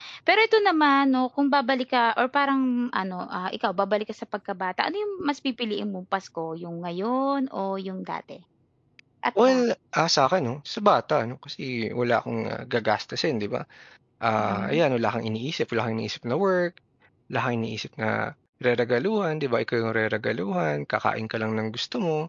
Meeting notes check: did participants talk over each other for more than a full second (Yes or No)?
No